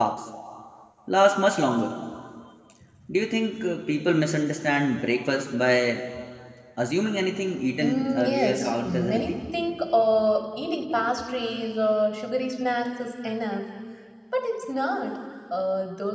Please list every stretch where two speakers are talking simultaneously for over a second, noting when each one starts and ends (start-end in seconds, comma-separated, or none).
7.8-9.4